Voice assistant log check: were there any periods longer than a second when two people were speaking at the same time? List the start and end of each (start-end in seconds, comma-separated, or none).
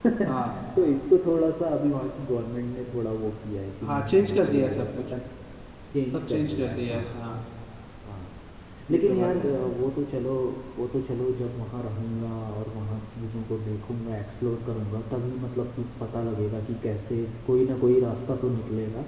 3.8-5.0, 6.1-7.4